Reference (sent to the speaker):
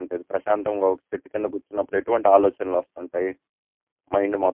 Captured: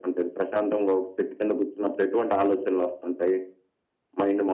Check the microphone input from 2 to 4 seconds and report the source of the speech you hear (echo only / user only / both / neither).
echo only